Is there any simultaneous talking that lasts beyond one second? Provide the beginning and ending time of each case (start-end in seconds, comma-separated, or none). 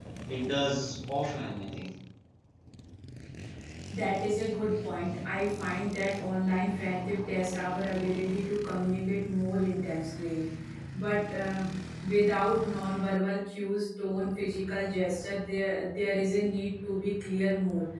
none